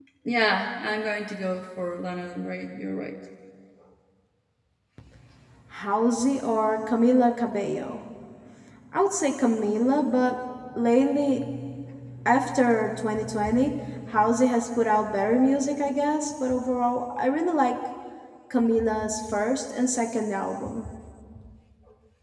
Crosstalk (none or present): none